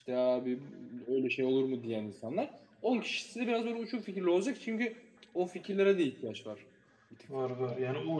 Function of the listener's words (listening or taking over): taking over